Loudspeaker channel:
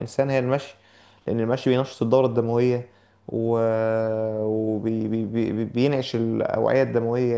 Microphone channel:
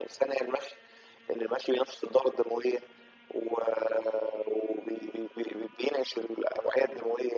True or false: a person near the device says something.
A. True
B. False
B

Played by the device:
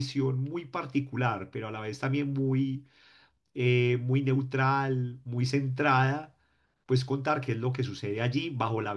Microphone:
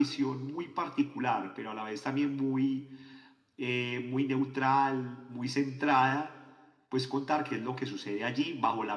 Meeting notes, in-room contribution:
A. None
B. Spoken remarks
A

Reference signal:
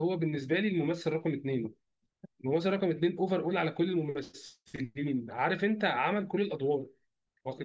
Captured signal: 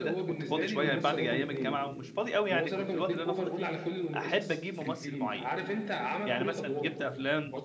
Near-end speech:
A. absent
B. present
B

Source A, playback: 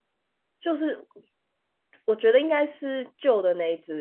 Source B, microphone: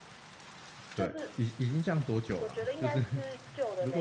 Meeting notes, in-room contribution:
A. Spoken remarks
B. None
A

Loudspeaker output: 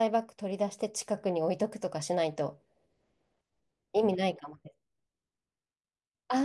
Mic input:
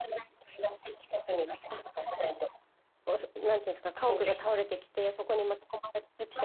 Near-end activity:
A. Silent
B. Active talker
B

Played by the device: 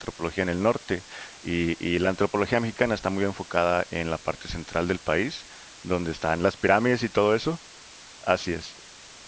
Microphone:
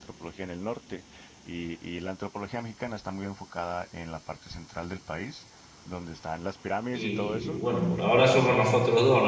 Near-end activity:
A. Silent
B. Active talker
B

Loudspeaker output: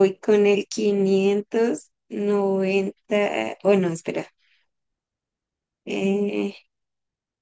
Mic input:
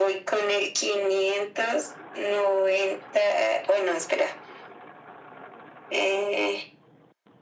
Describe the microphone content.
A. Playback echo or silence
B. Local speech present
A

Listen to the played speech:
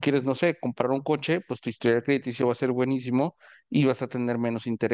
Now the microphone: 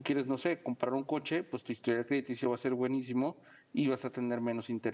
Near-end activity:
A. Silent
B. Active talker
A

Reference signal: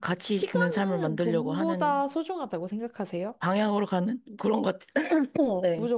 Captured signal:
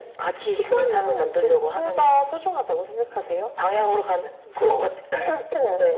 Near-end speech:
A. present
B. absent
B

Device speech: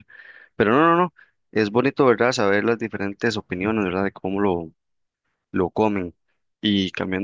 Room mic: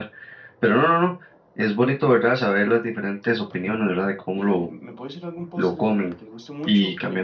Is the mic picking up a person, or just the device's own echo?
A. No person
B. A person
B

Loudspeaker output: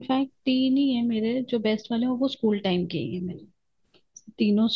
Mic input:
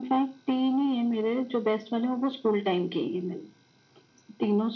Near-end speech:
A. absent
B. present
A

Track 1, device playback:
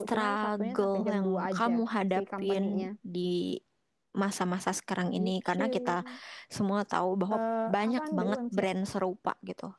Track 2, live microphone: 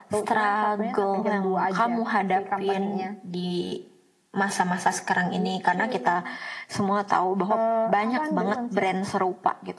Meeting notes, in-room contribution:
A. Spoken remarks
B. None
B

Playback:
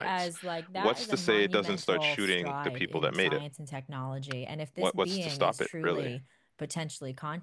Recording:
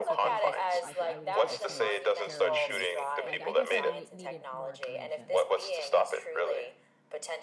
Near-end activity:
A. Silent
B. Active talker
B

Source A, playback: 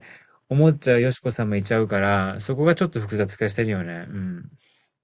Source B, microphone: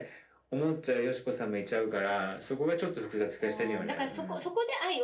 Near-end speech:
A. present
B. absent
A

